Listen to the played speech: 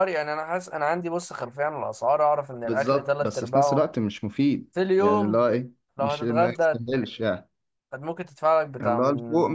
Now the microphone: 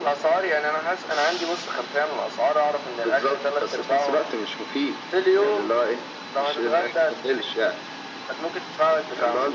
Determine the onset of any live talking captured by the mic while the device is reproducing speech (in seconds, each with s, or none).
none